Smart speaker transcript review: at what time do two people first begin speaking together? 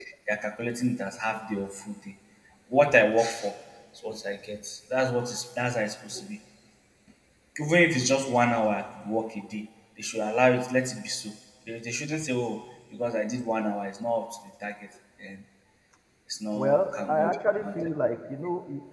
16.5 s

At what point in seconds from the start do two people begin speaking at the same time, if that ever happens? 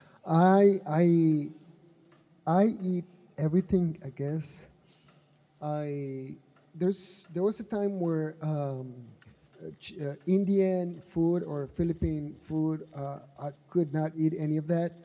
none

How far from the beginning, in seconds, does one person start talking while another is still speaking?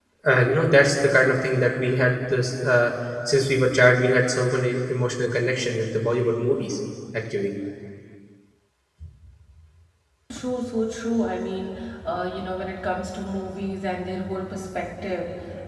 none

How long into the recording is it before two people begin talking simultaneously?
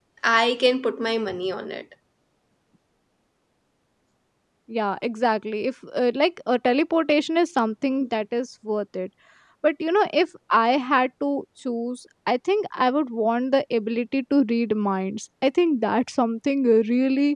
none

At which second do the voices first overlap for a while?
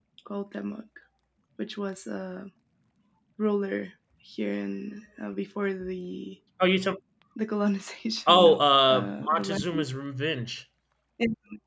8.3 s

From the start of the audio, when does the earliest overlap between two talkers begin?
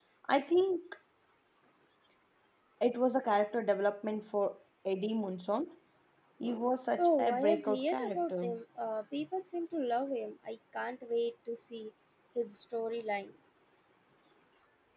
7.0 s

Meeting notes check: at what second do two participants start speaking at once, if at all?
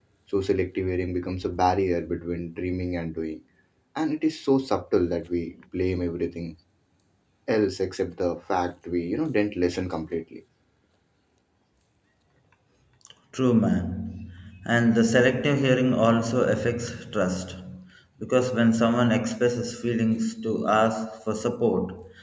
none

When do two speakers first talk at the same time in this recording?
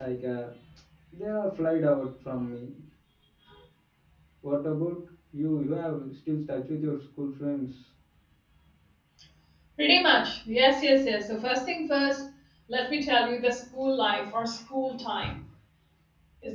none

